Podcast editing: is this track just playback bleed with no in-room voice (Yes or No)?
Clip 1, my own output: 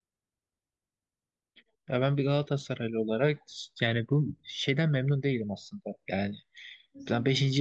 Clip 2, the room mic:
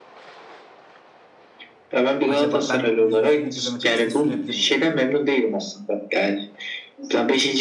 No